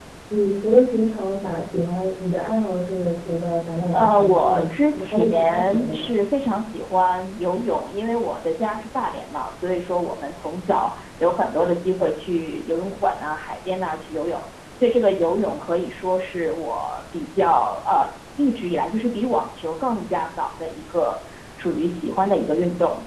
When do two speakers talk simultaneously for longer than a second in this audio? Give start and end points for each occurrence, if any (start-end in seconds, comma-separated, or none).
3.9-6.1